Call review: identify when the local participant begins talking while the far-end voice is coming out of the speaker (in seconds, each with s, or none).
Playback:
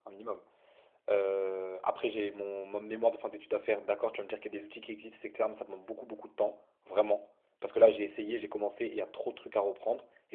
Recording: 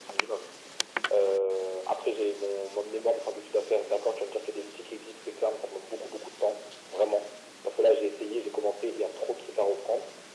none